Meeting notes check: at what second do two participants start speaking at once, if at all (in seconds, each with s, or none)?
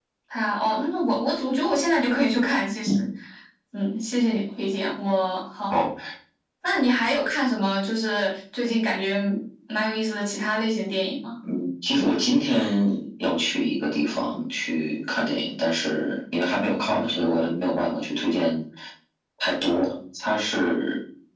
none